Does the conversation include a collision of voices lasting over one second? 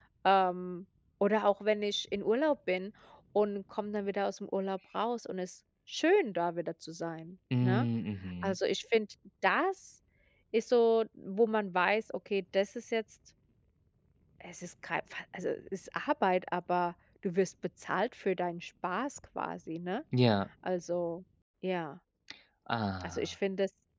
No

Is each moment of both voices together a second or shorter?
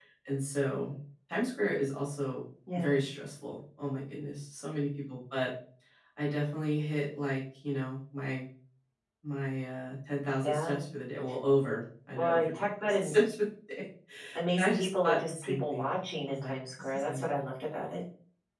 No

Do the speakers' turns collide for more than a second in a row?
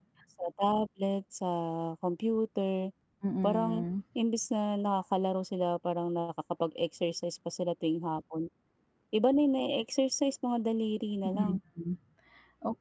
No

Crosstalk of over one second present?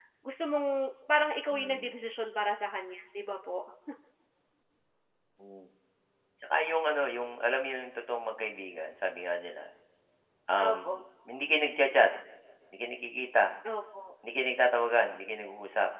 No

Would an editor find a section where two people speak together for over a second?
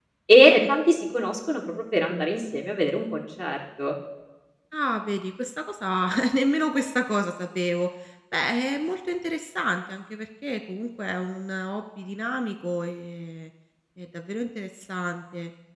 No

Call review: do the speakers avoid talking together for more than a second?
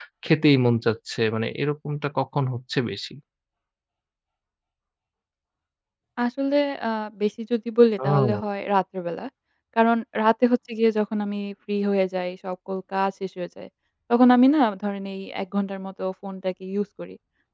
Yes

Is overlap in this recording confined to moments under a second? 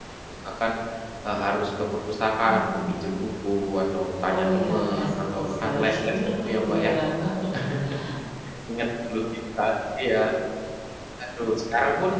No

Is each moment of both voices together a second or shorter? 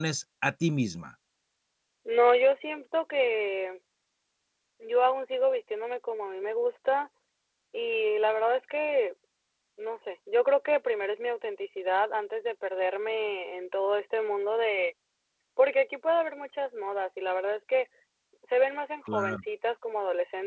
Yes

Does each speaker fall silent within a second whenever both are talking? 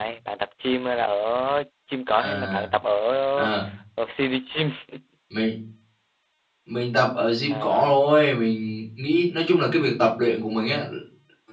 Yes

